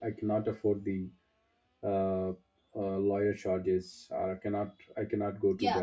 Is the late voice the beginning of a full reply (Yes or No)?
Yes